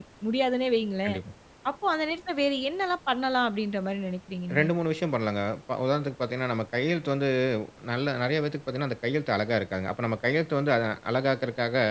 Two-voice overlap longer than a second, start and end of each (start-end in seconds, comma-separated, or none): none